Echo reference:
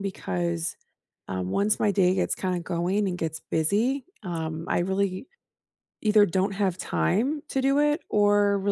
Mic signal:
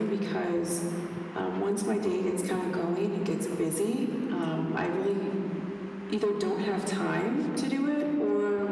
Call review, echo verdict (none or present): present